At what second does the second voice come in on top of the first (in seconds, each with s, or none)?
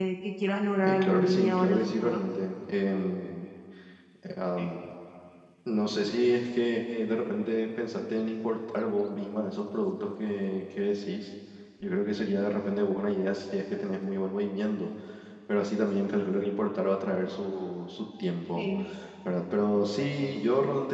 0.8 s